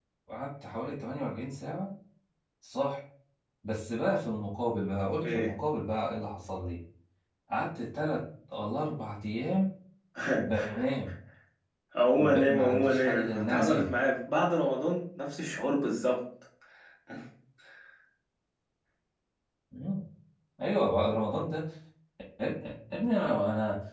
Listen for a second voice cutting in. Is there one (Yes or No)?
Yes